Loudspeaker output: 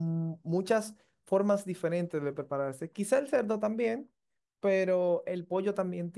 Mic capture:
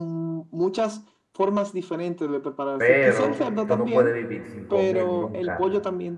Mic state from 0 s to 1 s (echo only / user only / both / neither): echo only